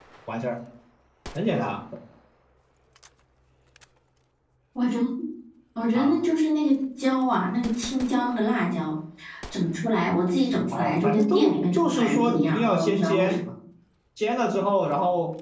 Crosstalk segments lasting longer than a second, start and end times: 10.7-13.4

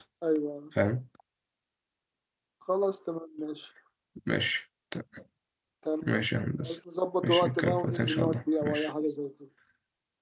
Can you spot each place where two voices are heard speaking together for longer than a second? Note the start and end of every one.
7.2-8.9

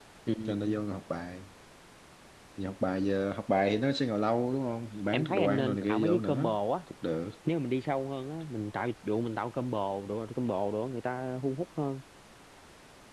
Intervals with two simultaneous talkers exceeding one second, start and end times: 5.1-6.6

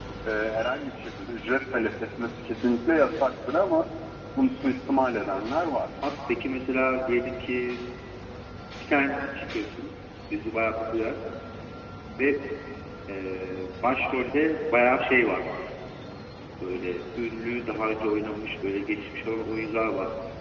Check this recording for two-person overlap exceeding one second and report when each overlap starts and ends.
none

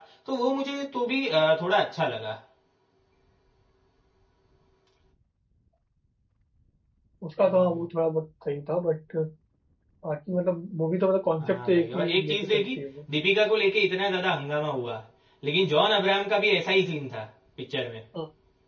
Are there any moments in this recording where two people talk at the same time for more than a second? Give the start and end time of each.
11.4-12.6

